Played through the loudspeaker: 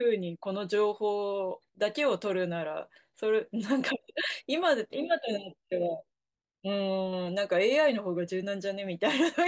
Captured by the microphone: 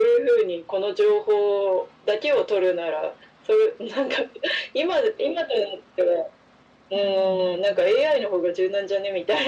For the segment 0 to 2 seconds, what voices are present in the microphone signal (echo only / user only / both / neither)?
echo only